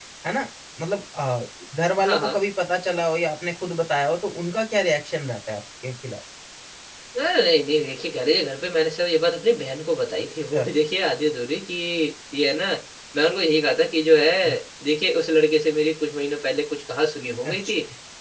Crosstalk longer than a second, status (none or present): none